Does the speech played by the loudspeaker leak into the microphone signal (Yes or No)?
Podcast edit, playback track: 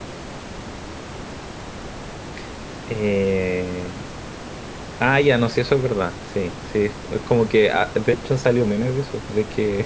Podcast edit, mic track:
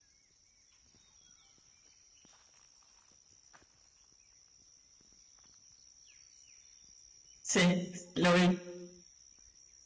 No